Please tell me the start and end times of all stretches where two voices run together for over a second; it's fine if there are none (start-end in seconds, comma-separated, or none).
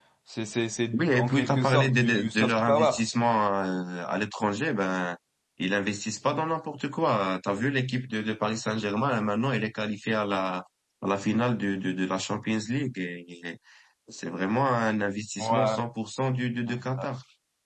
0.9-2.9